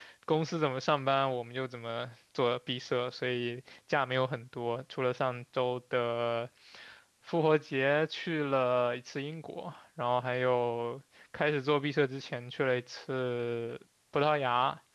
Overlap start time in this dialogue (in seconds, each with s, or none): none